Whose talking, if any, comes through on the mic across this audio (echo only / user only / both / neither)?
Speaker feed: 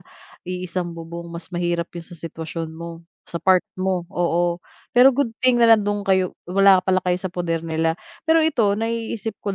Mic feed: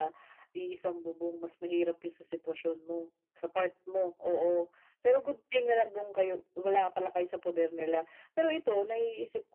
echo only